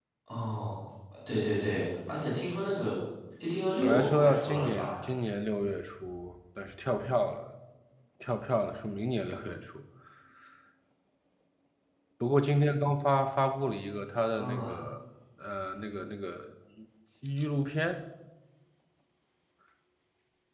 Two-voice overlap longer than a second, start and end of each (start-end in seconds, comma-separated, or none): 3.8-5.0